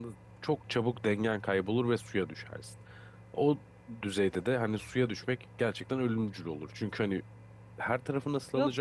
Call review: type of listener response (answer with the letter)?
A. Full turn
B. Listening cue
A